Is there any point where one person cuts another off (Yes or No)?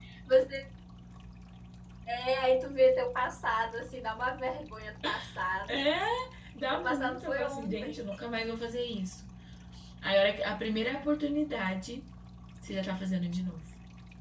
Yes